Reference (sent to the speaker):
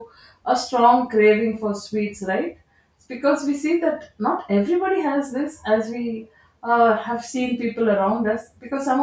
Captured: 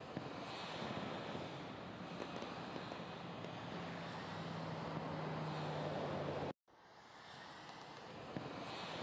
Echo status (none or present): none